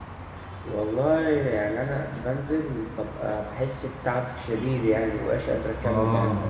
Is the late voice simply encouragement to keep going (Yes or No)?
No